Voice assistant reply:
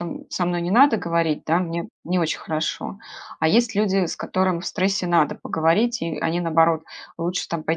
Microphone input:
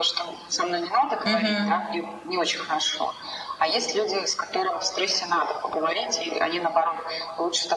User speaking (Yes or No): Yes